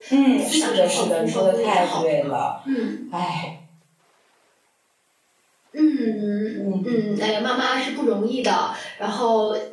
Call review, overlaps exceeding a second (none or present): present